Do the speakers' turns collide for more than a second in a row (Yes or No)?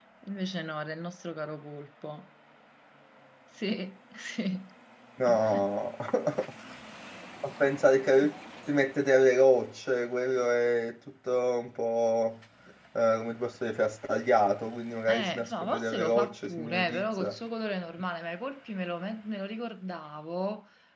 Yes